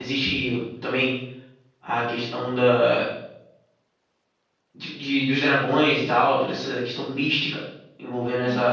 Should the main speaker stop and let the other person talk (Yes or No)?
Yes